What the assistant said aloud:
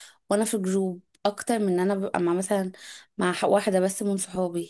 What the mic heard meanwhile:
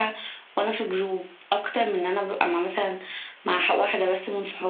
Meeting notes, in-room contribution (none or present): none